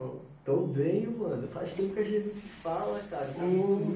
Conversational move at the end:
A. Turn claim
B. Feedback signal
B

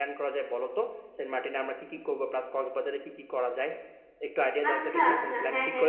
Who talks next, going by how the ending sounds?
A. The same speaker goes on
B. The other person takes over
B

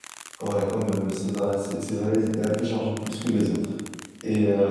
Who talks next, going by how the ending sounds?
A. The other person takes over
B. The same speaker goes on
B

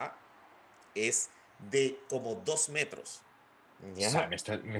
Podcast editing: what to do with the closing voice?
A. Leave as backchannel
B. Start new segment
B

